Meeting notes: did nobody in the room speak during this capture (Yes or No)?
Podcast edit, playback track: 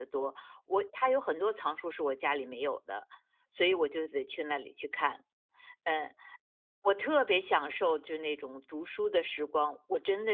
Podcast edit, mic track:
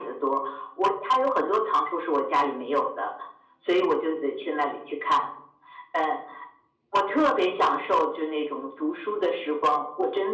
Yes